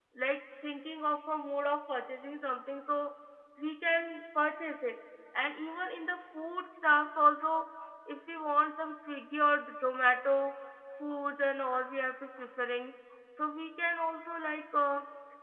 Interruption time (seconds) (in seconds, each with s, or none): none